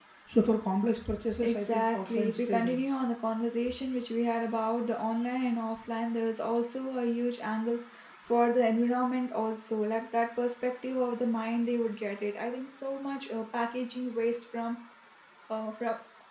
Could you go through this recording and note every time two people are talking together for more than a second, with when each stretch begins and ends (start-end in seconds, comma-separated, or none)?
1.4-2.8